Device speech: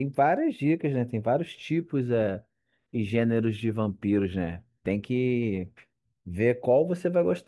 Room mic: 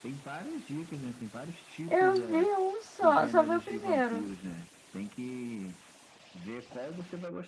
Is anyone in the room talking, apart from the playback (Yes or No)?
Yes